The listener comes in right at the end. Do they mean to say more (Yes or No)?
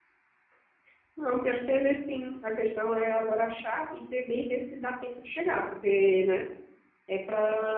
No